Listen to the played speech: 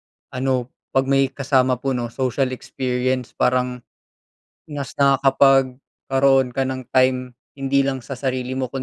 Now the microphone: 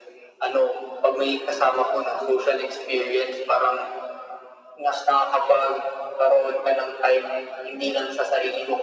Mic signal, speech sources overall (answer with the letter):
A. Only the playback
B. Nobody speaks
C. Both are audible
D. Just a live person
A